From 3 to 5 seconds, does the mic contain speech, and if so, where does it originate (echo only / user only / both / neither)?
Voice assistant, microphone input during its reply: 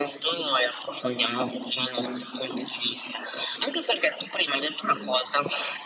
echo only